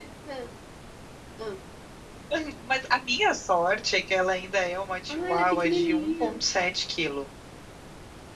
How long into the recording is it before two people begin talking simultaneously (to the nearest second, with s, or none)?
5 s